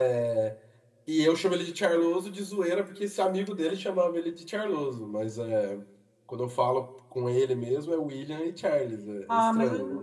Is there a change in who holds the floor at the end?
Yes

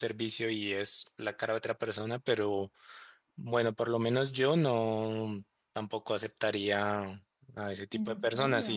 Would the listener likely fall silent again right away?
Yes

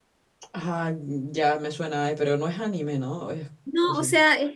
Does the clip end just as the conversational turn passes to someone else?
Yes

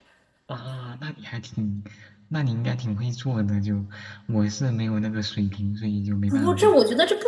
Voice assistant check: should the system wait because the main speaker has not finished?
No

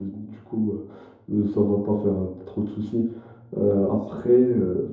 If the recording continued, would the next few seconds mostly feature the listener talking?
No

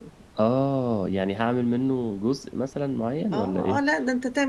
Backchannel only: No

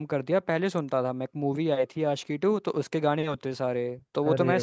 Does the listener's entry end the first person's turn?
No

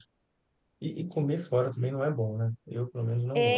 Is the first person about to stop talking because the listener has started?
Yes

